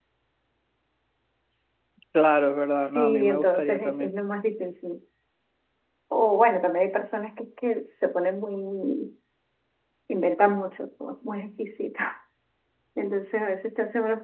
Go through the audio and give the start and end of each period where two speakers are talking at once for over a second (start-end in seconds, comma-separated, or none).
2.8-4.1